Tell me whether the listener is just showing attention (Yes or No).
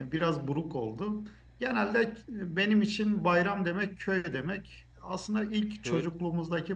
Yes